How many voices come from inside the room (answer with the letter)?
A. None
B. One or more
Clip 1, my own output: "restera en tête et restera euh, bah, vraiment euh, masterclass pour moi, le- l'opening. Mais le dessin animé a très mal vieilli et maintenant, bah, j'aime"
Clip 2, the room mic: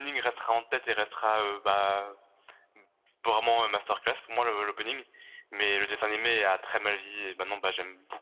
A